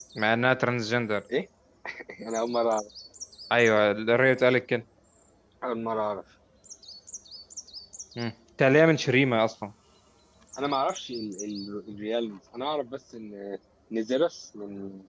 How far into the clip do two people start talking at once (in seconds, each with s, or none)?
none